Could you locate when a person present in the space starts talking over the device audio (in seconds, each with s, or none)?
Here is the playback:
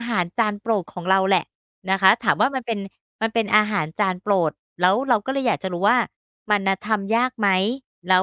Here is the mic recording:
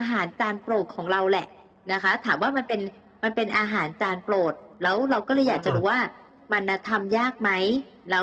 5.4 s